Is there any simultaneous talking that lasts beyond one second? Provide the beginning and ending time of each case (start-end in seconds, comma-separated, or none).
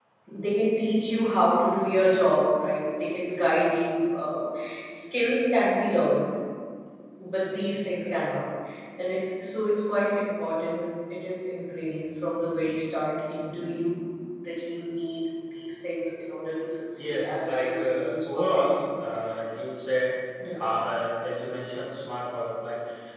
17.0-18.7